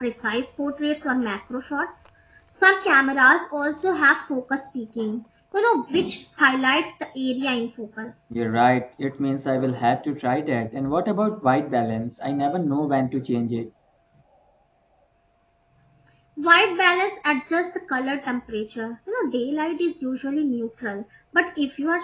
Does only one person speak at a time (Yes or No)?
Yes